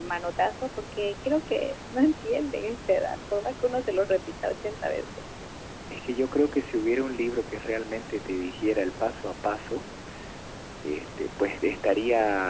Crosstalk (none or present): none